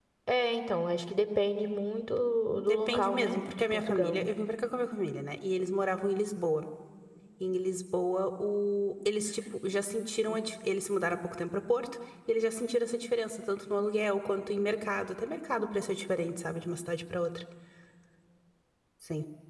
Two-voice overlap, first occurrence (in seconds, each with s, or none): 2.7 s